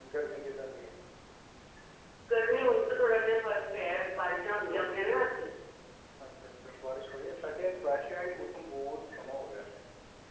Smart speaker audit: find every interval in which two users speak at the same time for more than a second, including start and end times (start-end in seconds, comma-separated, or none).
none